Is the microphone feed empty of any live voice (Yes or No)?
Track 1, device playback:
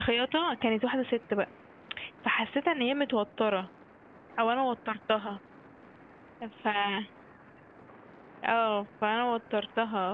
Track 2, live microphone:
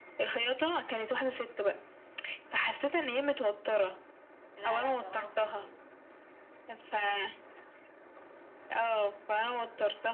No